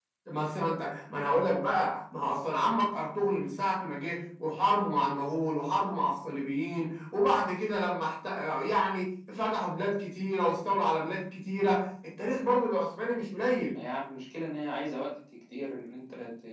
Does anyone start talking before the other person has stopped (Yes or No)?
No